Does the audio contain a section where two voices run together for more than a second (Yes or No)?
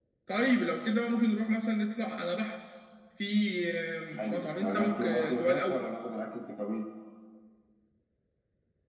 Yes